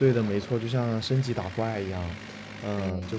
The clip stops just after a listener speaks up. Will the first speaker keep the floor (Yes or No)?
Yes